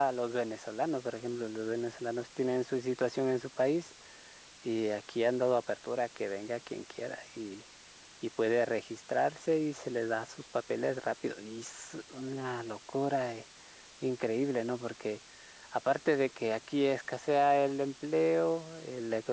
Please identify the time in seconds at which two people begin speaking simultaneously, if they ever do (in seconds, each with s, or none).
none